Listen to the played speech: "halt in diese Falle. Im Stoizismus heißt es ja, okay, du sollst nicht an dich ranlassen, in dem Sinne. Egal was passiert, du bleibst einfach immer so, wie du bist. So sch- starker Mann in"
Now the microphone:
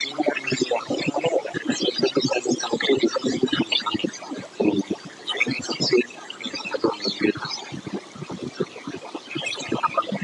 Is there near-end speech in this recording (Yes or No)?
No